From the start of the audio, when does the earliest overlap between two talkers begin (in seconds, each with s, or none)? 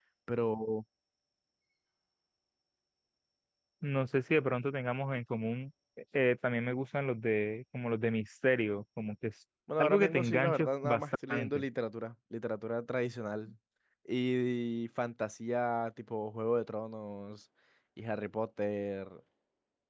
9.7 s